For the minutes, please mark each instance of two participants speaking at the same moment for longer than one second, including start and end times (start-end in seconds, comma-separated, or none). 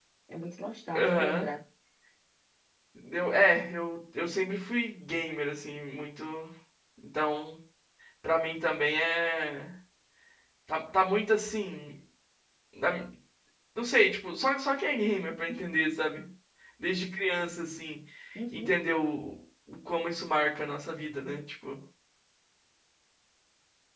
none